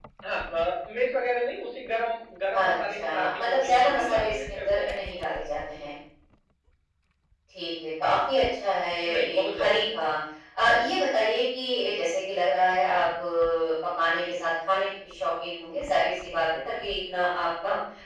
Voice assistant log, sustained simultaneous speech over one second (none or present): present